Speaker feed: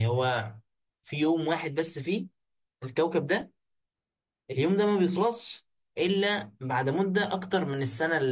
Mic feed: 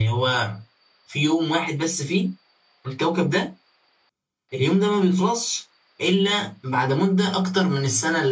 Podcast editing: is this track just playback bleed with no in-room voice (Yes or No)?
Yes